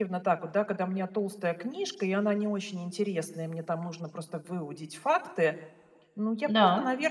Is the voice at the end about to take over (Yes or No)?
No